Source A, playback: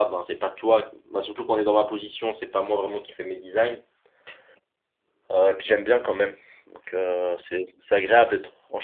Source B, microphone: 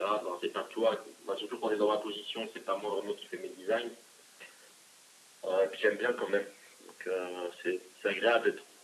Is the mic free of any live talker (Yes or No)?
Yes